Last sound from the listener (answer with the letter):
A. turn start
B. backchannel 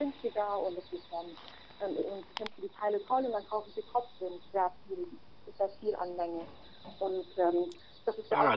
A